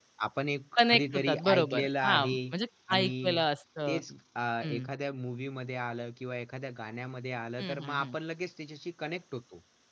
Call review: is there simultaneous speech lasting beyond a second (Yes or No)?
Yes